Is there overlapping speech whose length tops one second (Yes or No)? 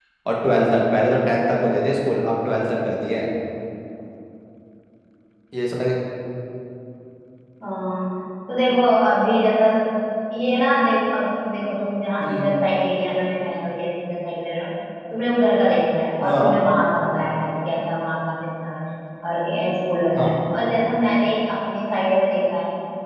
No